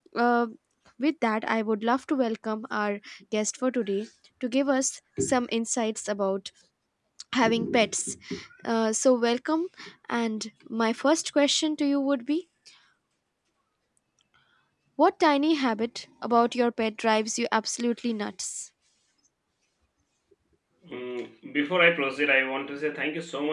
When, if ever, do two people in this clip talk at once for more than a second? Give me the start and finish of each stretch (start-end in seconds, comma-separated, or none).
none